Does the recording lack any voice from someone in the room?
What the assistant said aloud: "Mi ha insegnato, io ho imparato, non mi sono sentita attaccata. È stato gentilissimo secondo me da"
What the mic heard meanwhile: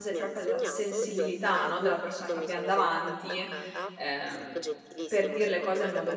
No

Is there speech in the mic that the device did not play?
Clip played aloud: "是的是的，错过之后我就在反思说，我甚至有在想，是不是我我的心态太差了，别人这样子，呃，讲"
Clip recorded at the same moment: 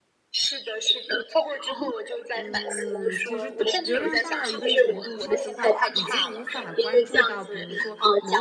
Yes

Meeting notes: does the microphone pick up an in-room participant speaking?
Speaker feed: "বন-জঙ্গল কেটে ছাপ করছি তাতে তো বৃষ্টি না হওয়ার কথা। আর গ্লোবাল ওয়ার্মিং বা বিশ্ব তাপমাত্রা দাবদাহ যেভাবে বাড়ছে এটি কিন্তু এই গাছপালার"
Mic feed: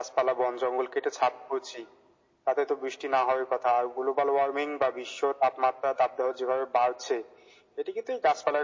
No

